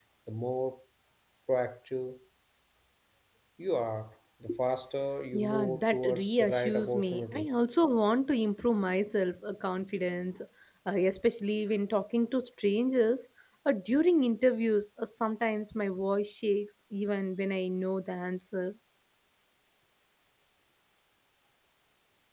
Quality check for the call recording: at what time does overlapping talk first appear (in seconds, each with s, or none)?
5.3 s